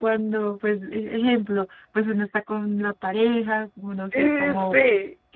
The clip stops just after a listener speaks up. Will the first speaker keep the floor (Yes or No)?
Yes